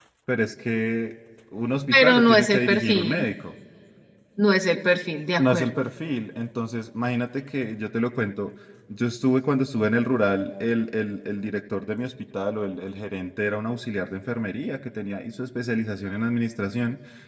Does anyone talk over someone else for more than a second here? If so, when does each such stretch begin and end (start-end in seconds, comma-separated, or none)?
1.9-3.2